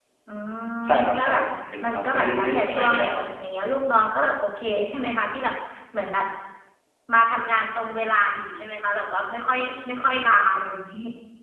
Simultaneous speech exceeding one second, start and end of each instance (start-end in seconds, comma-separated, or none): 1.8-3.2